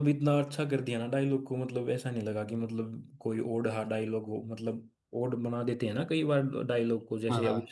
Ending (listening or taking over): taking over